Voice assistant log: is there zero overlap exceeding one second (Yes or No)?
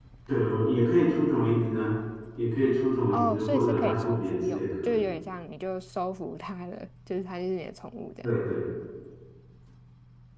No